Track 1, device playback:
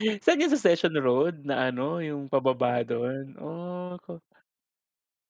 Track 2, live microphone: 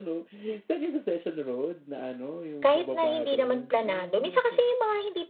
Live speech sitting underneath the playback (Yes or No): No